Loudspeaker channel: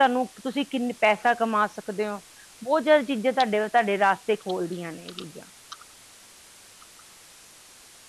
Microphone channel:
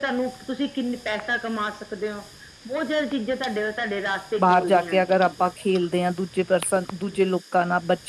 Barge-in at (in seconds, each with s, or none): 4.4 s